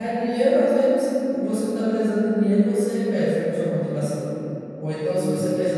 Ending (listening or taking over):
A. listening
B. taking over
A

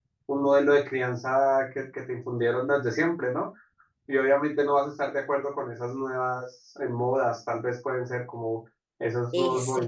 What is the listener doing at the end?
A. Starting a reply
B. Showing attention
A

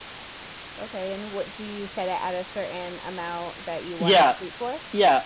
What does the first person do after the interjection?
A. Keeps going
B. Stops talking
B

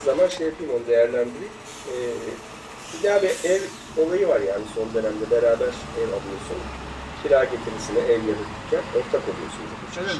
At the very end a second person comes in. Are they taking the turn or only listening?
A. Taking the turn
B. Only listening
A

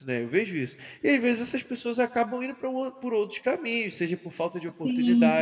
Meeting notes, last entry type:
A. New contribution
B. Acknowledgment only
B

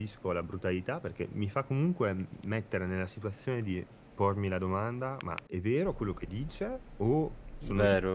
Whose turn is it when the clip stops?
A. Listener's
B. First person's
B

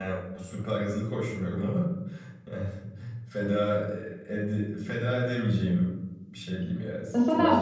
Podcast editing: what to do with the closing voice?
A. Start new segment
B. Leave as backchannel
A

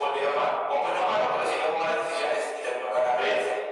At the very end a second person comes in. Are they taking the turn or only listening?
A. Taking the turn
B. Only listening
A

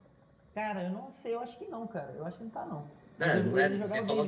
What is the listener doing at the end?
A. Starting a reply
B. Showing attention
A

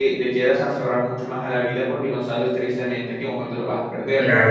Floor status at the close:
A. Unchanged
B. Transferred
B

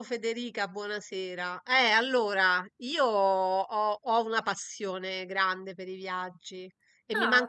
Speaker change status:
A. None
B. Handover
A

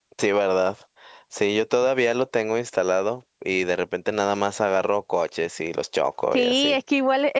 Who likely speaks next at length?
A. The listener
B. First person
A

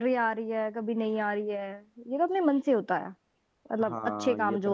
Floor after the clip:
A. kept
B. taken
B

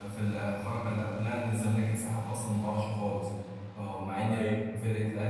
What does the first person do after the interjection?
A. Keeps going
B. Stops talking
A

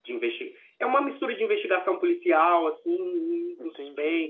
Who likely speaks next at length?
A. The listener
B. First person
A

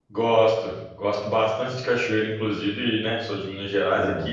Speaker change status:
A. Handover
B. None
B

